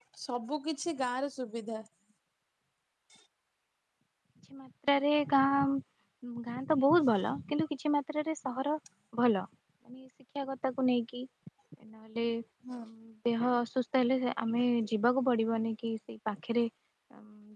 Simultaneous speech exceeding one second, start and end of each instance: none

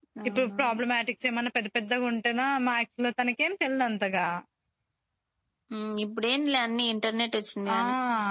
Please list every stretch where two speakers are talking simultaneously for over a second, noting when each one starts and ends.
none

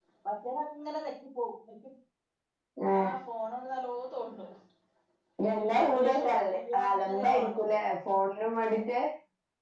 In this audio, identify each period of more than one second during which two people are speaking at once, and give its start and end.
5.6-7.6

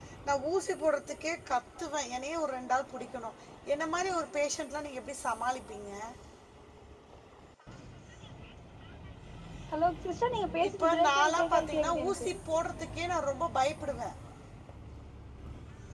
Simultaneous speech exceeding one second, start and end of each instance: 10.7-12.3

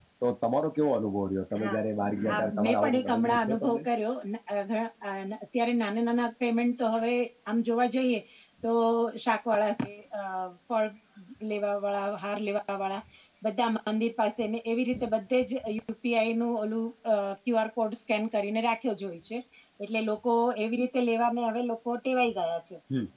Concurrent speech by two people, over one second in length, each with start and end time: 2.3-3.8

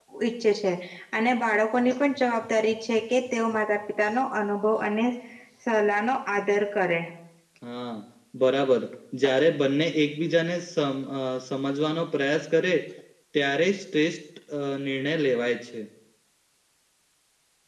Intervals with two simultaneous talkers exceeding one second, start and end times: none

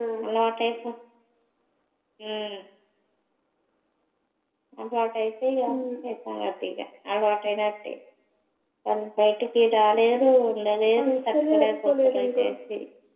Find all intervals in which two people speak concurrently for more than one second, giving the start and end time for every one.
11.0-12.5

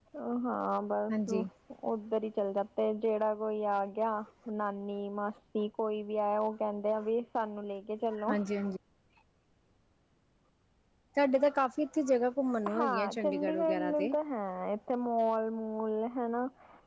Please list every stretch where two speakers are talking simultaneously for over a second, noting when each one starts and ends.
12.8-14.1

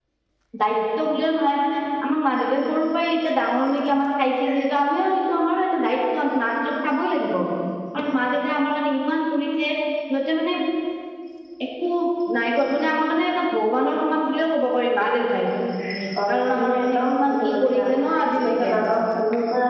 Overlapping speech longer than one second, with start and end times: 16.3-17.8

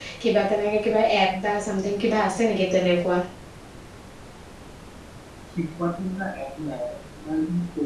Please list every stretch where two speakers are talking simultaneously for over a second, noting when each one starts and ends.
none

